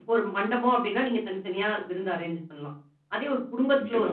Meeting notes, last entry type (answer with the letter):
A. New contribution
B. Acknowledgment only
B